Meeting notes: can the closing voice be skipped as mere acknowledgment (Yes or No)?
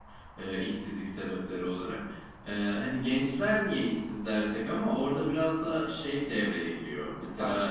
Yes